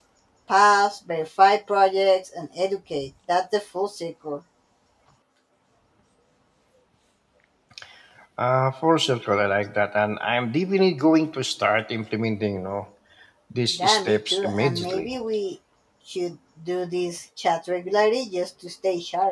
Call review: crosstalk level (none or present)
present